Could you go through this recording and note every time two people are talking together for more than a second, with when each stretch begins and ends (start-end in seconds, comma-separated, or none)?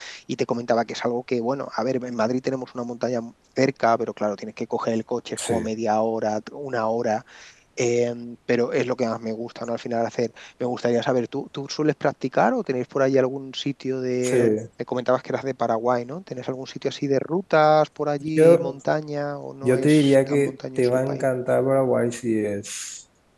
19.6-21.2